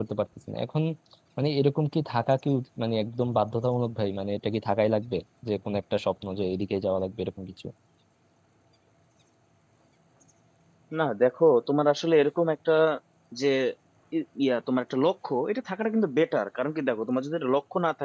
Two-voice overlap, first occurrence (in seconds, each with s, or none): none